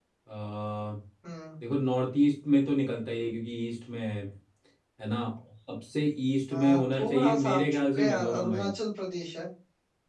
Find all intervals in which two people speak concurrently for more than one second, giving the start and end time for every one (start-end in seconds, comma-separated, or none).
6.5-8.7